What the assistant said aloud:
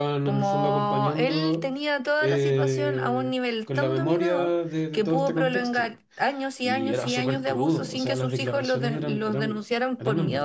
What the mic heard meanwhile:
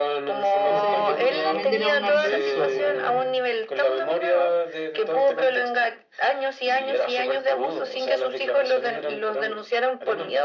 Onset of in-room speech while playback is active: 0.7 s

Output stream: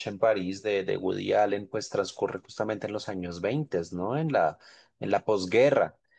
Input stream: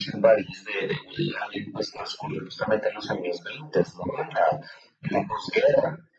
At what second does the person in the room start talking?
none

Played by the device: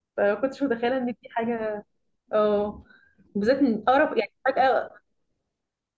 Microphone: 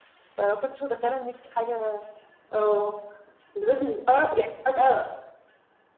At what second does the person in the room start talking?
none

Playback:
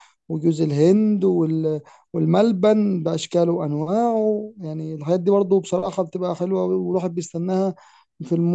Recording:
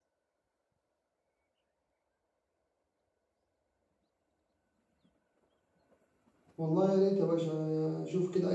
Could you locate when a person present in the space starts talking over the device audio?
6.6 s

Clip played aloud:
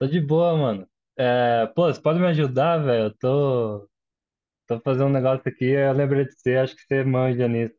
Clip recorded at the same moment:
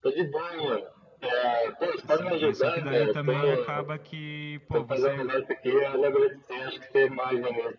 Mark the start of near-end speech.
2.0 s

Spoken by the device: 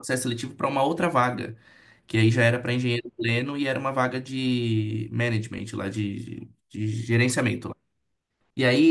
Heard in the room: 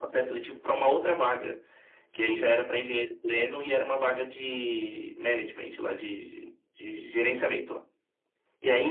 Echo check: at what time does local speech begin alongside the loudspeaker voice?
none

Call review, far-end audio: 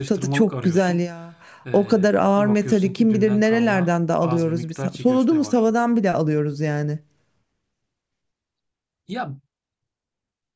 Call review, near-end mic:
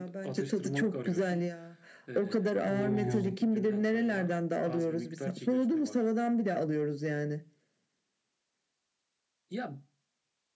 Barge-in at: 2.6 s

